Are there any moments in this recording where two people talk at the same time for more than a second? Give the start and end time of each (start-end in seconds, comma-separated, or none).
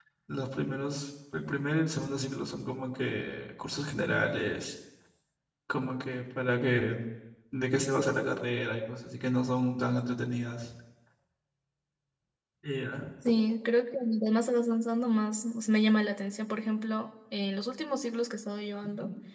none